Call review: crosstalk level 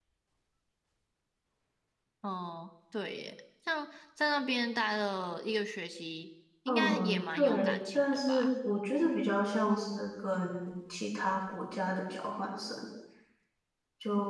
present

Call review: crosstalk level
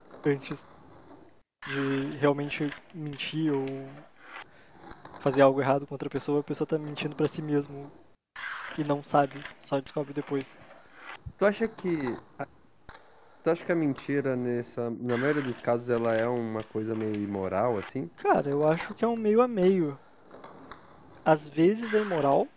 none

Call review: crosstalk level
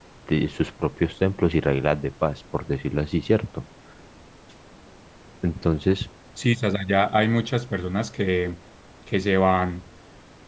none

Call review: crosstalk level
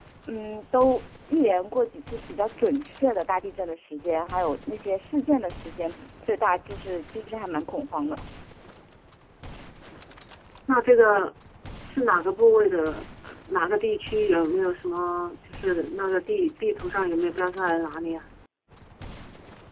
none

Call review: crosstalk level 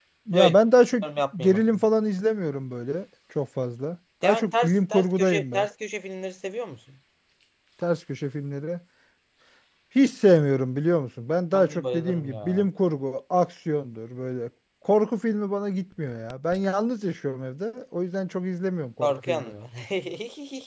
present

